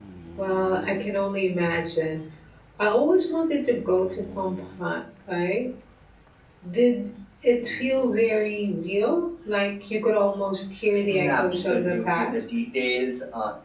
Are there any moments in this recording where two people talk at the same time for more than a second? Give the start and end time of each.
11.1-12.4

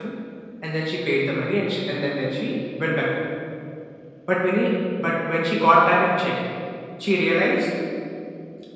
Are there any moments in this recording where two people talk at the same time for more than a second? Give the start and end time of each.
none

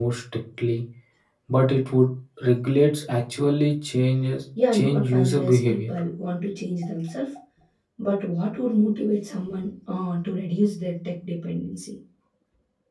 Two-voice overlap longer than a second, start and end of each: 4.7-6.0

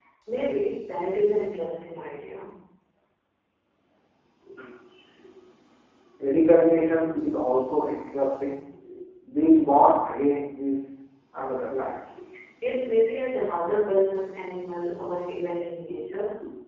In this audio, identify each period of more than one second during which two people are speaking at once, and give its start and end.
none

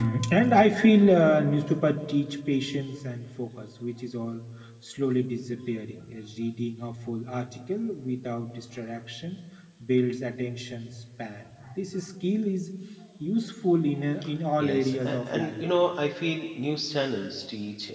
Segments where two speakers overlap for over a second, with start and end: 14.6-15.9

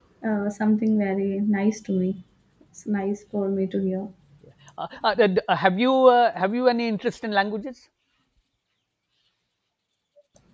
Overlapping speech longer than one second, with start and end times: none

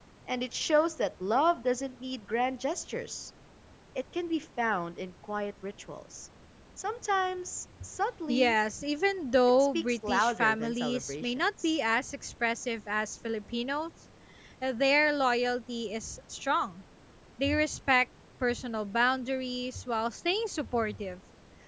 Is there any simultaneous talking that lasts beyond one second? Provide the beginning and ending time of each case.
9.6-11.8

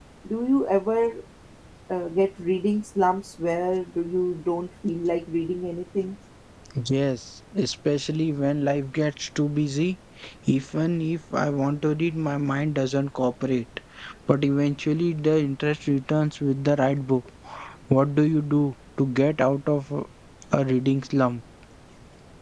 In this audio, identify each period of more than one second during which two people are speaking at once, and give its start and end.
none

